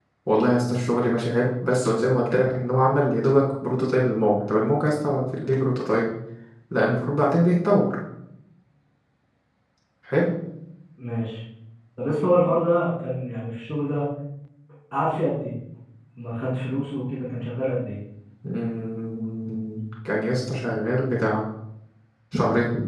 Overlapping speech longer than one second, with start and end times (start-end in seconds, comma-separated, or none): none